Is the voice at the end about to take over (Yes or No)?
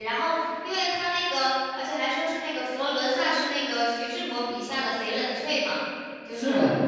Yes